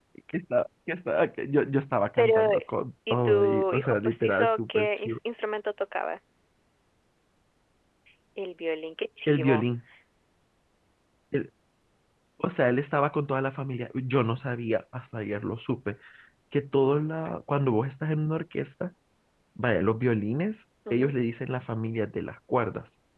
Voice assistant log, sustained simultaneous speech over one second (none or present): present